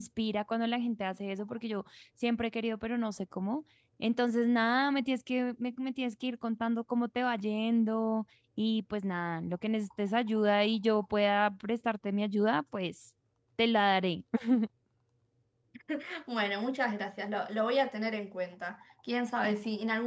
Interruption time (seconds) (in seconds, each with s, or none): none